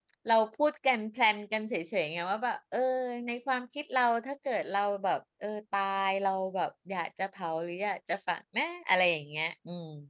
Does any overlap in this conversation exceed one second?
No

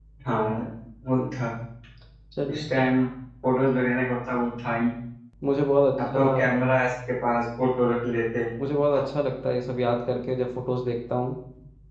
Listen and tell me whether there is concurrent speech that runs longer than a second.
No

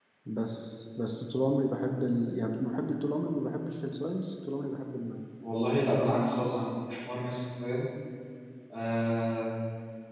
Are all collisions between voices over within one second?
Yes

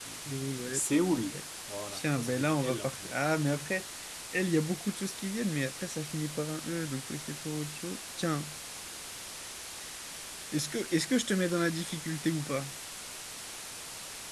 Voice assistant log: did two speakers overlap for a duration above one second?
Yes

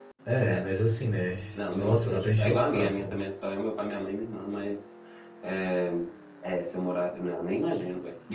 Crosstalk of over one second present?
Yes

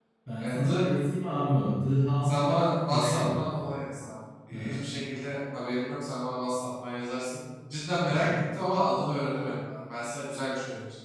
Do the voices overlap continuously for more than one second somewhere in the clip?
Yes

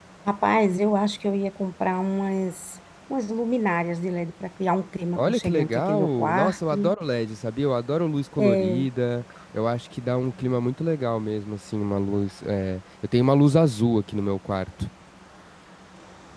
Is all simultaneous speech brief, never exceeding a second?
No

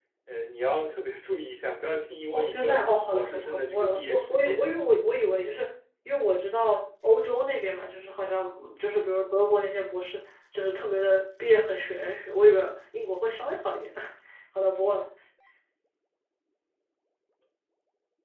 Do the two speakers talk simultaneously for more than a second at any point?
Yes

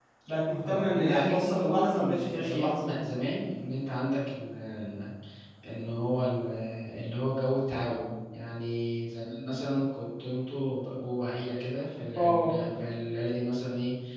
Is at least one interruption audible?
Yes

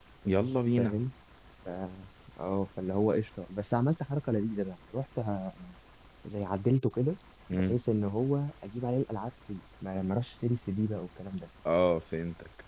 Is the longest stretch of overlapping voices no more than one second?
Yes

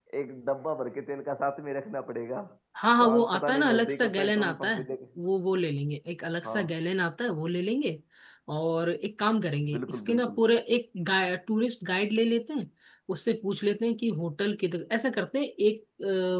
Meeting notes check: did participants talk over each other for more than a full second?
Yes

